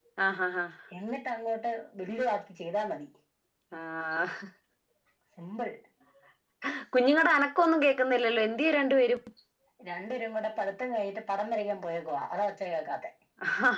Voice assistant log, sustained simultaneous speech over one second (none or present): none